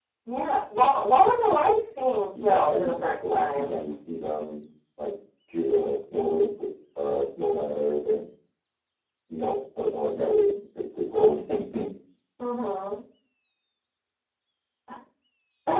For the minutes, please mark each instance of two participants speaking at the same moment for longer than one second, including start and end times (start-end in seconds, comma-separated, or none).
2.4-3.7